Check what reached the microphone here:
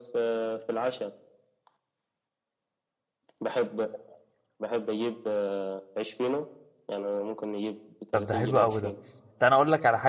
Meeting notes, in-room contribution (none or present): present